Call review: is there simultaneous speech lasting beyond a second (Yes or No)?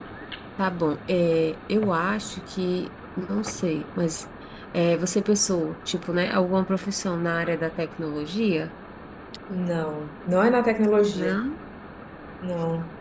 No